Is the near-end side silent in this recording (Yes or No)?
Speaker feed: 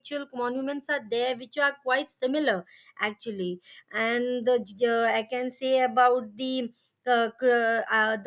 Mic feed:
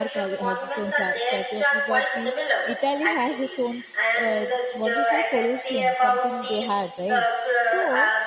No